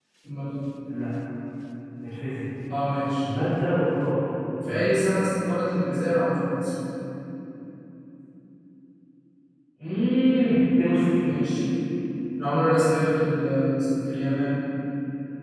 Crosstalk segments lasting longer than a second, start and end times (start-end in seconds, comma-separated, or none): none